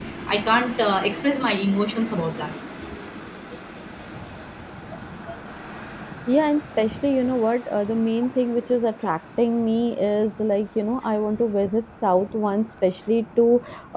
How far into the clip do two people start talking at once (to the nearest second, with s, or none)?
none